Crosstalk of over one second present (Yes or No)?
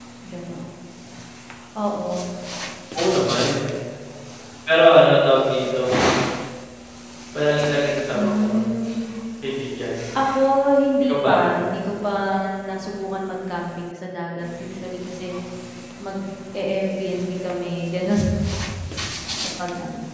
No